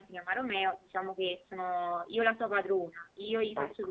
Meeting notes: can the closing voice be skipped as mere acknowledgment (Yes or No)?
Yes